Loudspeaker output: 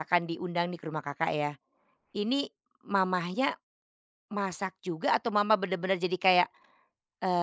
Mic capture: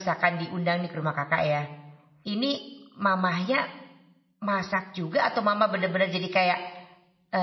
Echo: present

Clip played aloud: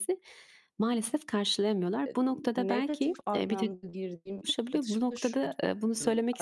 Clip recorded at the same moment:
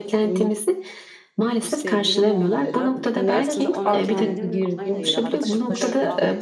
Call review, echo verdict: present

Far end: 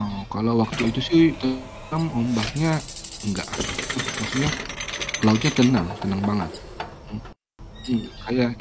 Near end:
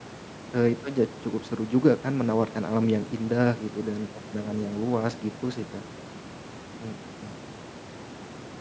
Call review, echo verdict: none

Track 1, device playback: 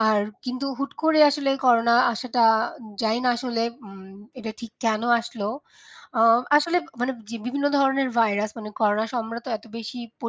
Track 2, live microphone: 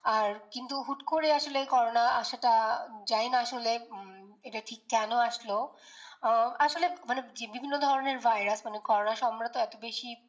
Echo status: present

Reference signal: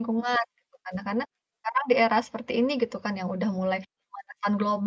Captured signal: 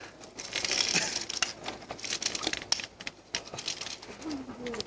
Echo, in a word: none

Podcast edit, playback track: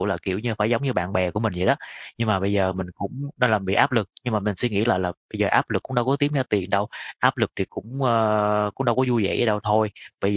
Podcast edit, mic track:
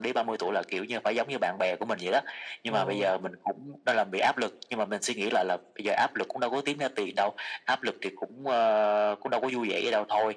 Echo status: present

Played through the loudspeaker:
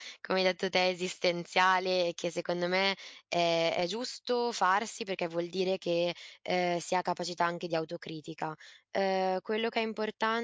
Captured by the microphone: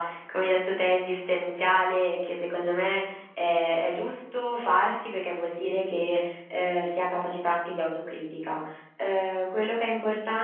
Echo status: present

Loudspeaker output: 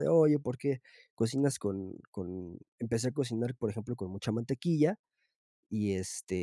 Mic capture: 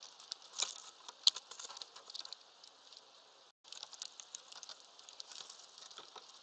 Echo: none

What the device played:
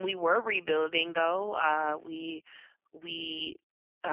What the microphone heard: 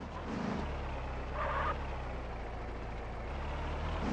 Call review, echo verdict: none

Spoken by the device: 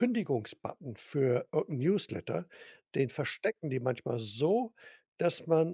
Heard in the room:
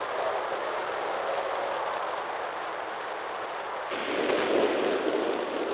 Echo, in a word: none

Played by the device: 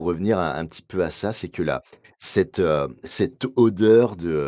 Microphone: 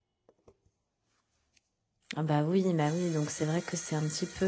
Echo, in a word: none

